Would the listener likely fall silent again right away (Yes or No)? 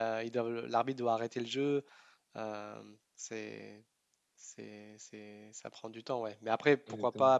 Yes